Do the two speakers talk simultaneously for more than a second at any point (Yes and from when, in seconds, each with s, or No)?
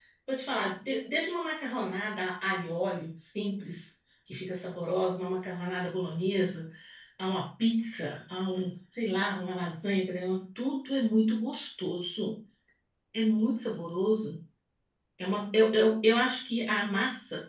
No